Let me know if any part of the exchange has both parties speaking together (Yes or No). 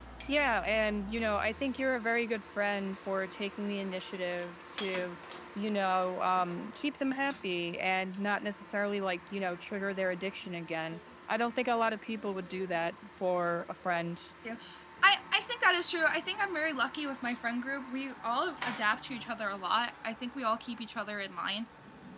No